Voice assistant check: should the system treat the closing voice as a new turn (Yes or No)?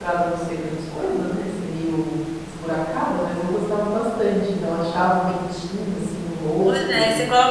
Yes